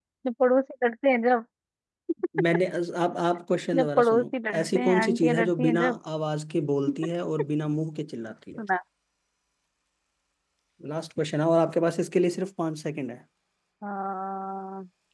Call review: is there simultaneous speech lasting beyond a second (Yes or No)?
Yes